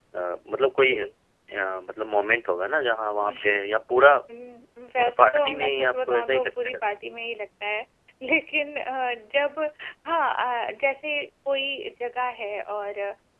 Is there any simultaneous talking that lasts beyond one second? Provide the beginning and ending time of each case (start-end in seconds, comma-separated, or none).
5.0-6.8